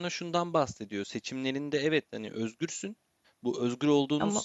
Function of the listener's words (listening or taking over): listening